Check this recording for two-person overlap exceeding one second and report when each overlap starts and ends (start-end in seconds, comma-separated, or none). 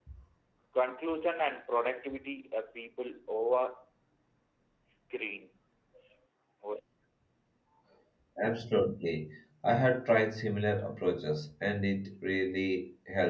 none